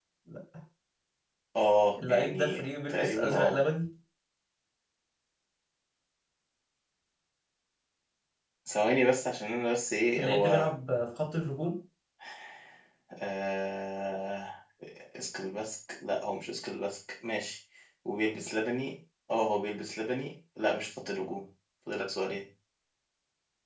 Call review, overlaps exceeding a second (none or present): present